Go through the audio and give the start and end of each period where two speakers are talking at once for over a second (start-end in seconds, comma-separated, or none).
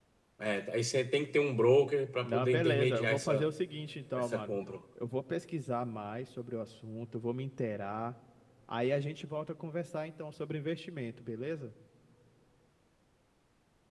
2.2-3.5